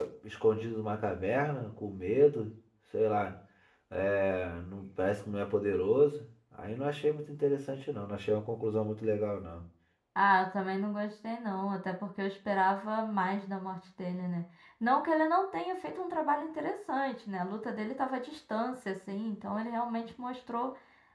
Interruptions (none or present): none